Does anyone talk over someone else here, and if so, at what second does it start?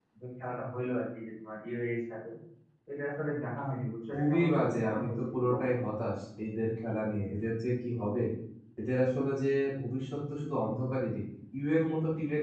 4.1 s

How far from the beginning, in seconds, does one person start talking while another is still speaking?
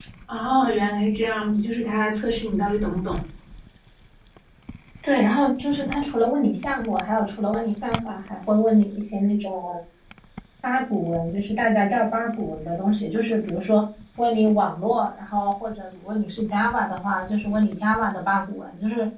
none

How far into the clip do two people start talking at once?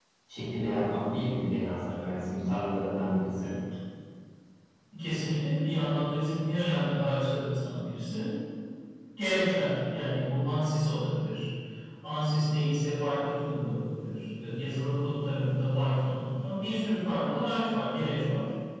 none

